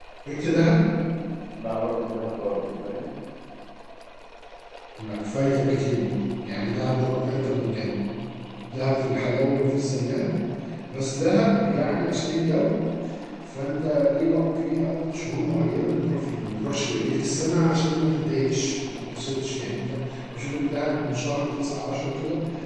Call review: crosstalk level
none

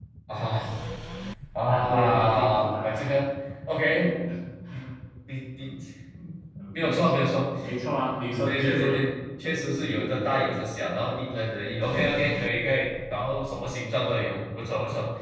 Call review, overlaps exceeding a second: present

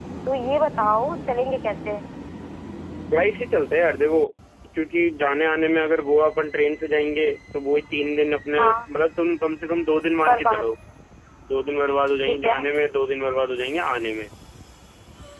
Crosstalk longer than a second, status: none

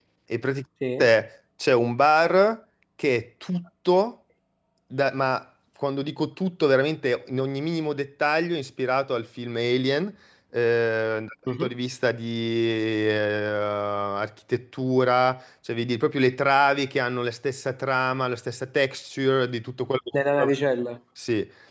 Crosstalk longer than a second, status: none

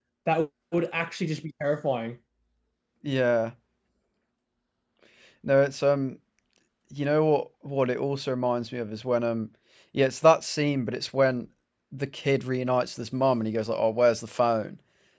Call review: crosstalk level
none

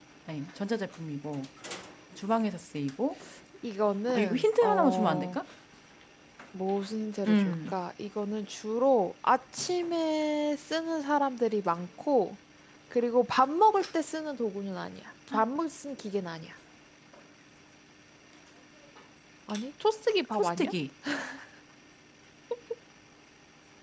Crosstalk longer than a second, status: present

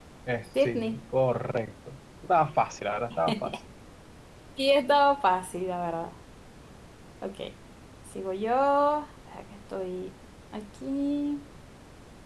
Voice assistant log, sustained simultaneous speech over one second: none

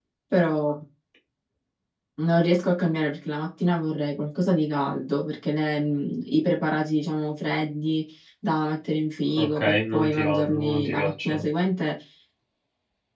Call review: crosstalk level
present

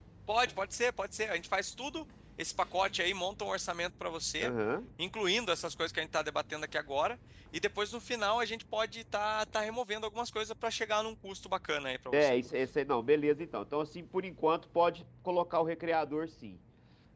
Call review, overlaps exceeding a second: none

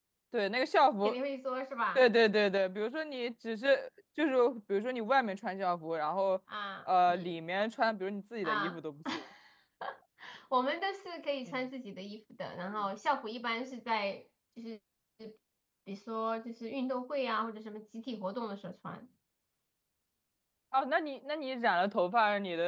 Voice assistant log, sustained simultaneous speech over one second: none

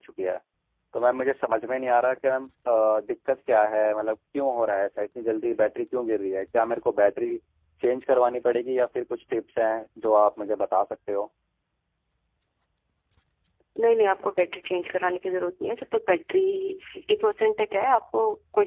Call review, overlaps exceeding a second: none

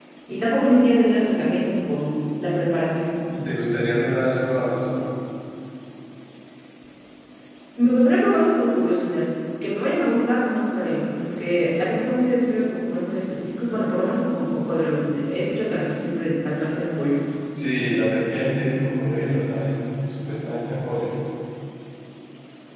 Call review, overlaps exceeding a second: none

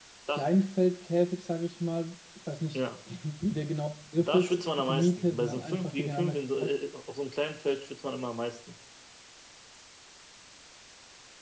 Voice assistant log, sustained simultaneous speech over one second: present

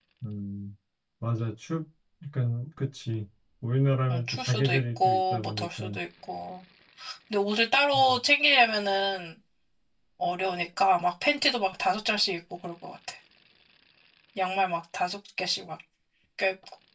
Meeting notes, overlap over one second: present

